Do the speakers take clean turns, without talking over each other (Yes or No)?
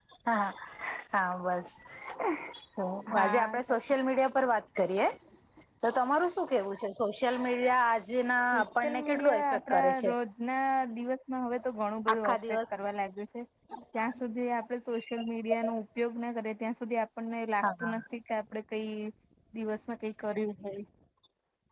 No